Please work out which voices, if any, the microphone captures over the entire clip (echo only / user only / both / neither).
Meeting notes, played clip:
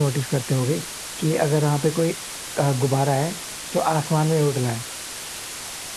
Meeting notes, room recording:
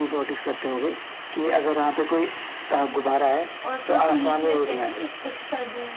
both